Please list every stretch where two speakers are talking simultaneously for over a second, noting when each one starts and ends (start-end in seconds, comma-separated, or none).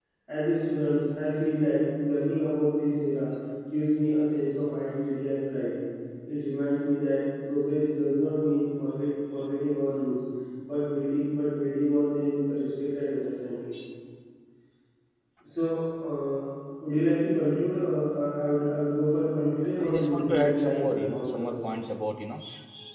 19.8-21.6